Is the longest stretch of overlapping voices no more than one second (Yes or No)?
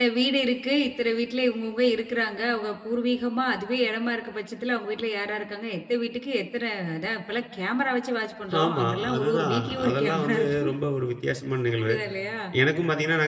No